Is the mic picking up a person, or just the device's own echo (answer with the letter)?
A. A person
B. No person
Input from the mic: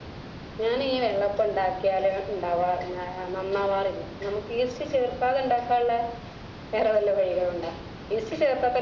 B